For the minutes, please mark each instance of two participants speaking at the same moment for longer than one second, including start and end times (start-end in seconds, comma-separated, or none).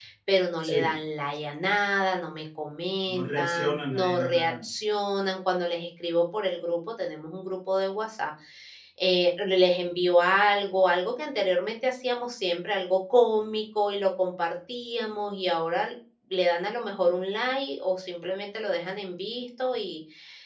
3.1-4.5